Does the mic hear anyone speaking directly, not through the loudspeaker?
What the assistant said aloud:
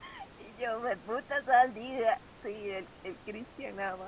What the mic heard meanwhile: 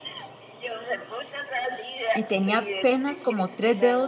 Yes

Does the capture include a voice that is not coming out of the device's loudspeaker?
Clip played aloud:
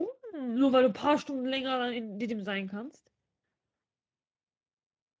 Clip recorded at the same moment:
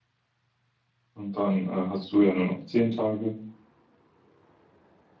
Yes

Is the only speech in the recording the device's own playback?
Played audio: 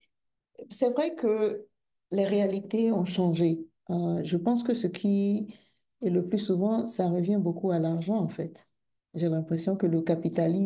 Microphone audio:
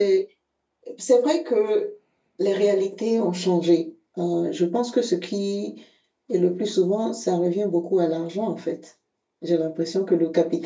Yes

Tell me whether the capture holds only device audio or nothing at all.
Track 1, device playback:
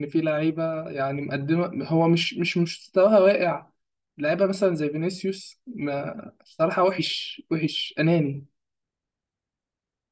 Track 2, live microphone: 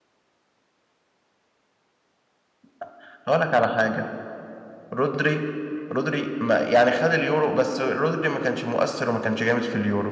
No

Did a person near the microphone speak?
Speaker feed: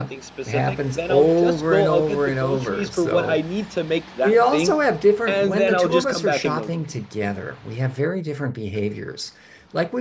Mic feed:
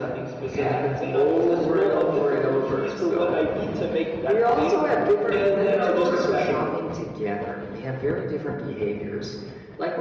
No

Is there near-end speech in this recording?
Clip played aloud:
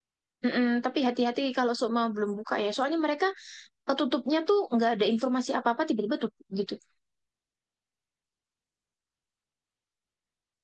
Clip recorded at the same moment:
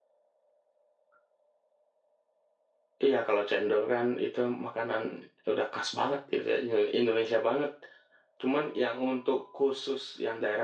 Yes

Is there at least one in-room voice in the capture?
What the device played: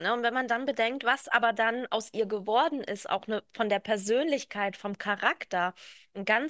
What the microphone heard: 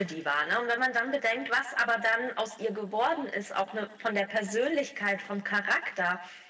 No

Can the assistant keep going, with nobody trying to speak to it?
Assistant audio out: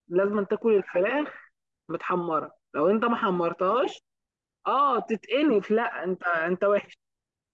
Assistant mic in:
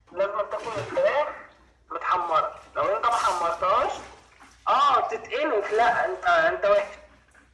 Yes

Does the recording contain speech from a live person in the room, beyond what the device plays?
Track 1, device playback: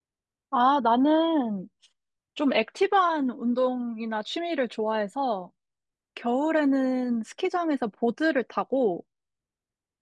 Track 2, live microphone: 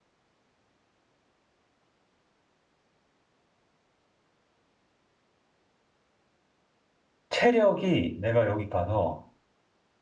Yes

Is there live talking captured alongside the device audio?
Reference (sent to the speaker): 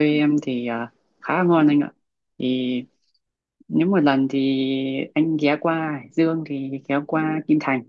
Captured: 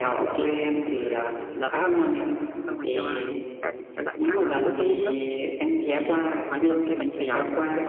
Yes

